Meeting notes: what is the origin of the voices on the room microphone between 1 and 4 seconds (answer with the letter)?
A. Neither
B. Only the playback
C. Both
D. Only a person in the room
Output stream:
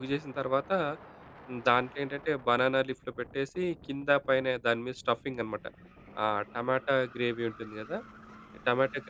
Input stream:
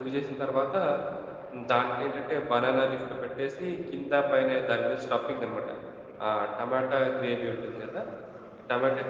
B